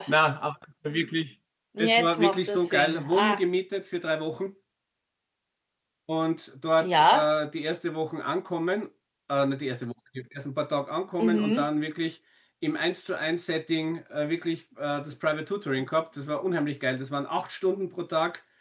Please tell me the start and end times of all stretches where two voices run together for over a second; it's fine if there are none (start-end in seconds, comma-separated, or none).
1.8-3.4